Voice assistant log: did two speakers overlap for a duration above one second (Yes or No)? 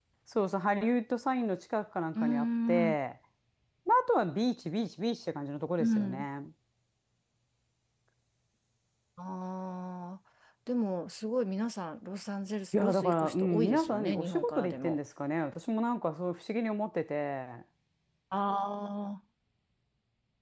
Yes